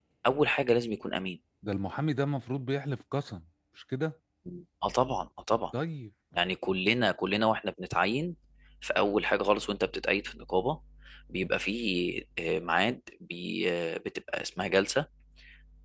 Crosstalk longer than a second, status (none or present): none